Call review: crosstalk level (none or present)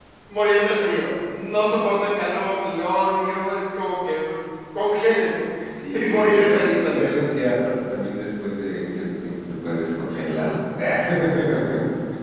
present